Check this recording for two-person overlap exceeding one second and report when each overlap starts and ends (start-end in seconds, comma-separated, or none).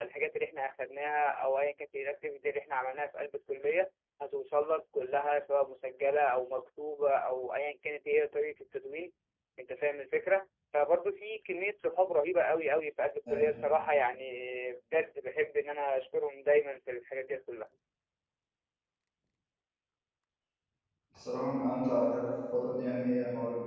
none